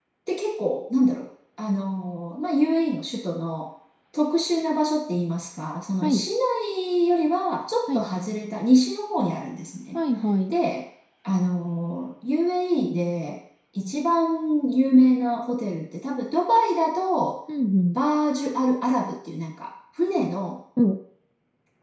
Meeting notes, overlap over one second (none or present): none